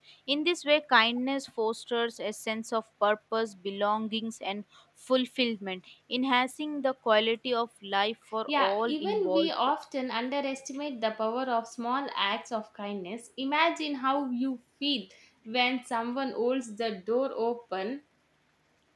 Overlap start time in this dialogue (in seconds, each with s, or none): 8.5 s